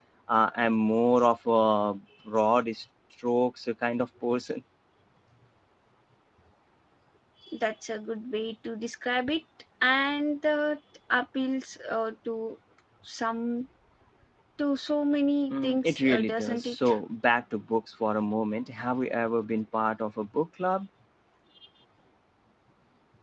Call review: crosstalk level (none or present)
present